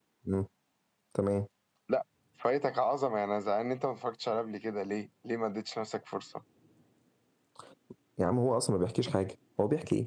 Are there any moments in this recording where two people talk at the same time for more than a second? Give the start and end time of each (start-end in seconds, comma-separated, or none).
none